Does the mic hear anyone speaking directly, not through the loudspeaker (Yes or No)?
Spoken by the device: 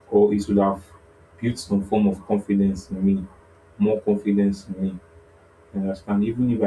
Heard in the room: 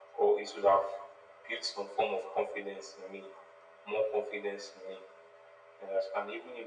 No